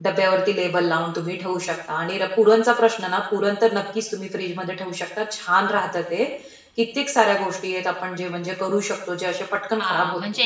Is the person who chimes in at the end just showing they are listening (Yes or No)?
No